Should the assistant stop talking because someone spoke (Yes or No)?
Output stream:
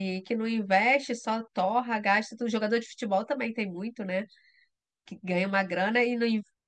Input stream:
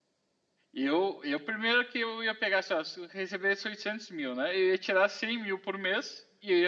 Yes